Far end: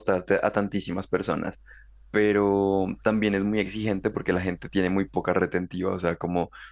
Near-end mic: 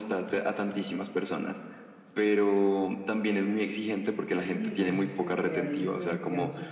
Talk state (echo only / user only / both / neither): both